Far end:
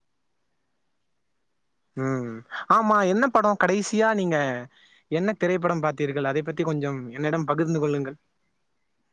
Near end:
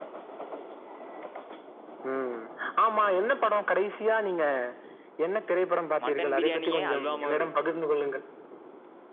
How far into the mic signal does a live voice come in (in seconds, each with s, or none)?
6.0 s